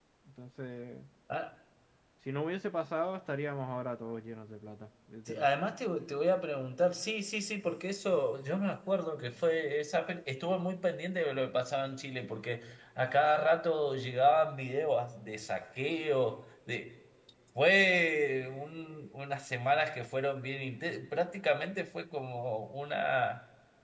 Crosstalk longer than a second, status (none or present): none